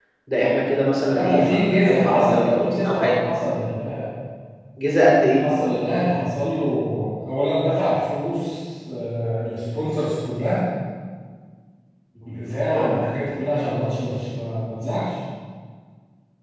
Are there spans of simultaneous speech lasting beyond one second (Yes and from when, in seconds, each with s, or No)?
Yes, from 1.1 s